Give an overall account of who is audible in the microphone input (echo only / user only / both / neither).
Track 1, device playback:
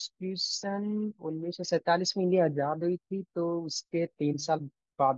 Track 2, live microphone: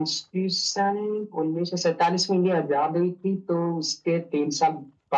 echo only